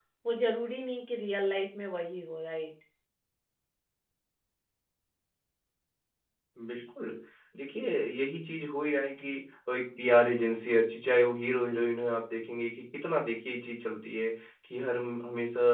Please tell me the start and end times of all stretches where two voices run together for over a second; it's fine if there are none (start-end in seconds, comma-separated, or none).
none